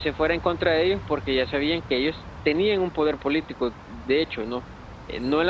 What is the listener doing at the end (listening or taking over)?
listening